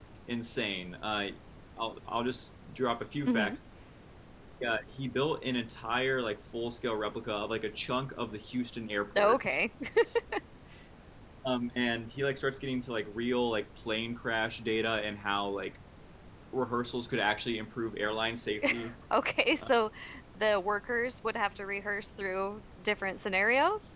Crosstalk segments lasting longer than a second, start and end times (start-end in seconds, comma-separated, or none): none